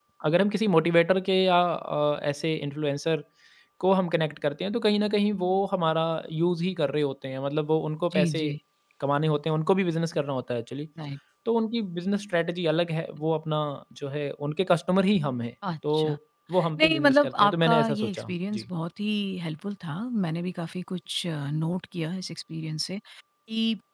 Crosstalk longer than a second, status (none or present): present